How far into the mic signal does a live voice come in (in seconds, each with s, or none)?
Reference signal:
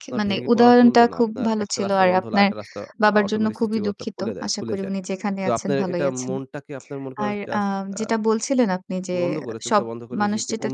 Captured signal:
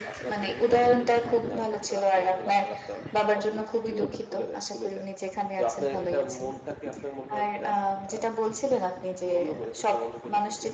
none